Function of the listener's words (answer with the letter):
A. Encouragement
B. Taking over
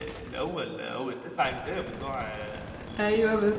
B